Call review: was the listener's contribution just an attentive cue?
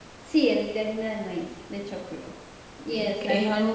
No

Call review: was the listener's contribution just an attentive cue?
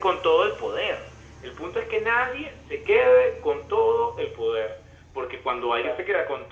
Yes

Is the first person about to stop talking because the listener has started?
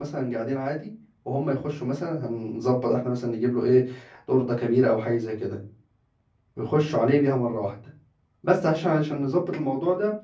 No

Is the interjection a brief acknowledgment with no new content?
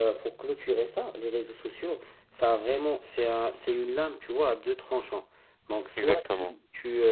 Yes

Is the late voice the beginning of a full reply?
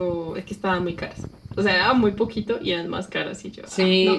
Yes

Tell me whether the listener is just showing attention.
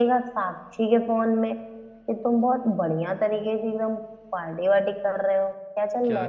No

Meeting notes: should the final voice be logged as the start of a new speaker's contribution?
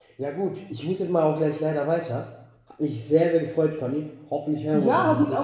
Yes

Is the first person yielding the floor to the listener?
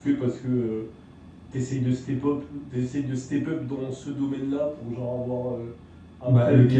No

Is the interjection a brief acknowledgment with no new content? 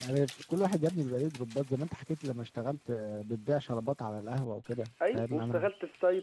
No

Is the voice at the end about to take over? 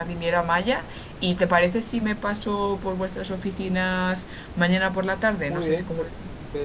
Yes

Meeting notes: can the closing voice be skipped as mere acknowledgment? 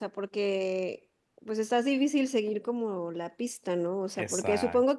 Yes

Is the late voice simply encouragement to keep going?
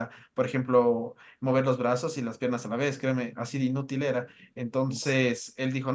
Yes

